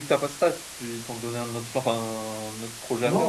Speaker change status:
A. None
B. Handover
B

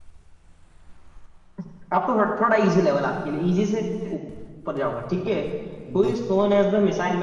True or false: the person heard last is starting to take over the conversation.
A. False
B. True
A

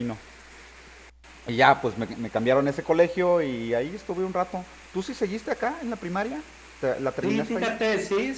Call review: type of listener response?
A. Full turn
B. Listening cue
A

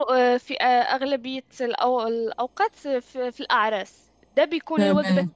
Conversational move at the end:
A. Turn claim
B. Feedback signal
B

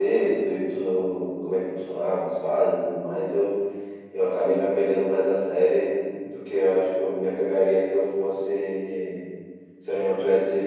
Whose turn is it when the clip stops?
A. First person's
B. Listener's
A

